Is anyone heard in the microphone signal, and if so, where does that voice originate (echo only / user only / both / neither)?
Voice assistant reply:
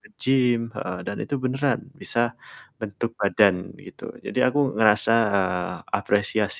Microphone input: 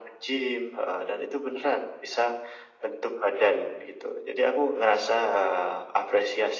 echo only